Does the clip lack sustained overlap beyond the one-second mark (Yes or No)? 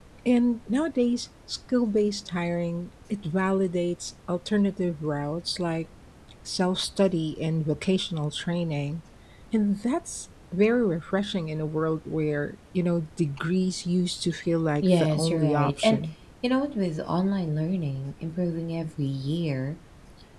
No